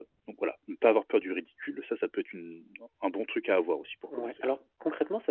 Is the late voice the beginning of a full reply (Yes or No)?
Yes